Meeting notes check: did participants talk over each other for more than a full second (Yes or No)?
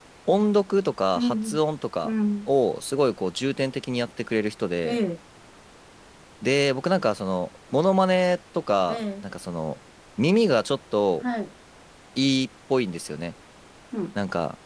No